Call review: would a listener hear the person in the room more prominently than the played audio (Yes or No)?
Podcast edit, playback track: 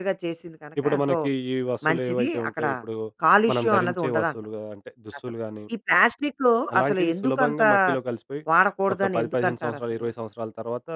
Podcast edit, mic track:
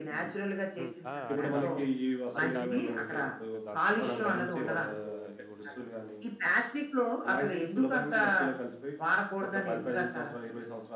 No